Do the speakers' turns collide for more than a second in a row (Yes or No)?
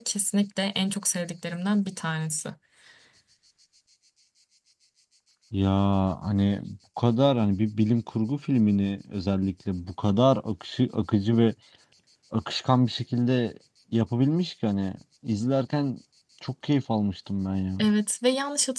No